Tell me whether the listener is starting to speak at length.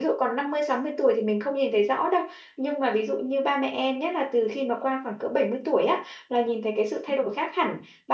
No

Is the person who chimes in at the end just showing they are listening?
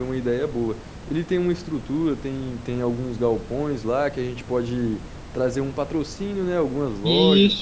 Yes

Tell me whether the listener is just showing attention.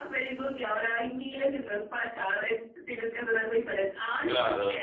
No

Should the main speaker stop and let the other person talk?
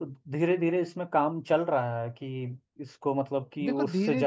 Yes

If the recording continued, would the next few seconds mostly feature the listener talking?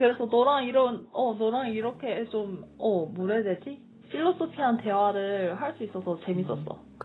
Yes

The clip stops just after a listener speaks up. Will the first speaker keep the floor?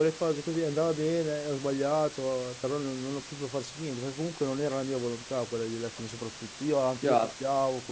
No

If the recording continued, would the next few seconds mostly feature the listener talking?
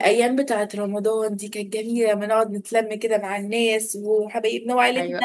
Yes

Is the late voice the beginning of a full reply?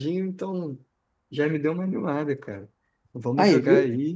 No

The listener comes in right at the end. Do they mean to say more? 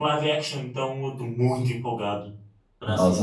Yes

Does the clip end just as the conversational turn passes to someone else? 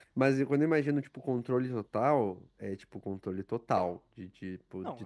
Yes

